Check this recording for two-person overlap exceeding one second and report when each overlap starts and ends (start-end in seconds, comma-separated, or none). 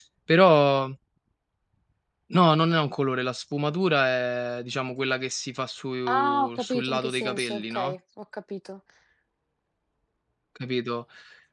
6.1-8.0